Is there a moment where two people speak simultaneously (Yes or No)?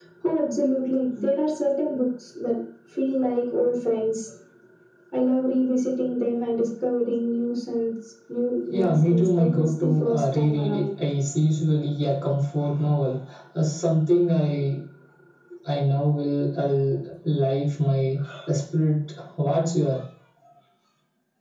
Yes